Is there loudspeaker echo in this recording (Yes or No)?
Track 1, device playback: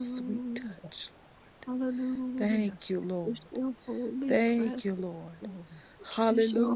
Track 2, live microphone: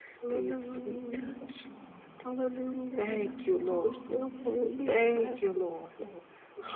Yes